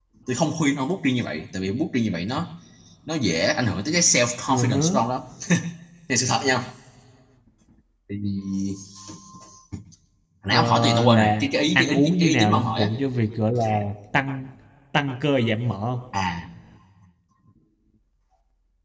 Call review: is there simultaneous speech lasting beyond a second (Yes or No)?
Yes